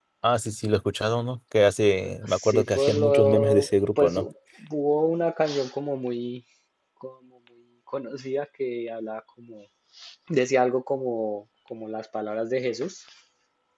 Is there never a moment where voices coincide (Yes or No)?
No